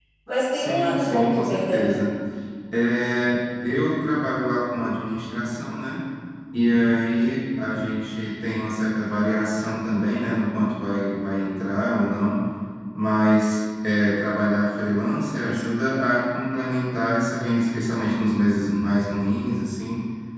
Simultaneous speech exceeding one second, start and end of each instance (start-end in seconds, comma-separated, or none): 0.5-1.8